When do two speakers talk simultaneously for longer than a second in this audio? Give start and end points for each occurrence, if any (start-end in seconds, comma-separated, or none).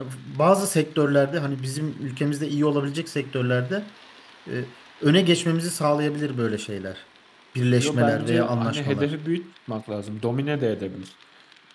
7.7-9.1